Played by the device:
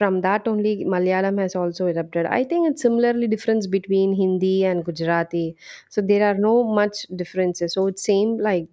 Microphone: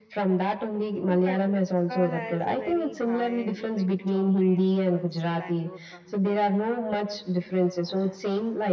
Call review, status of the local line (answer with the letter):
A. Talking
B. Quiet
A